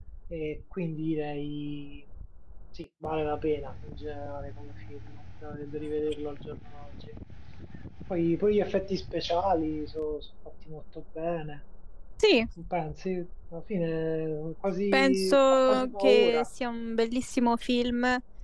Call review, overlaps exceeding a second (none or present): present